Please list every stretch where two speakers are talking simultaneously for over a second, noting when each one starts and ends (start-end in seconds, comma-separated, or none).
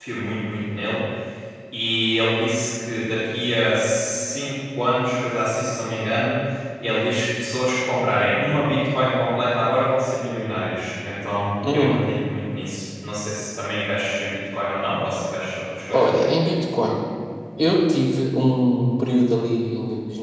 none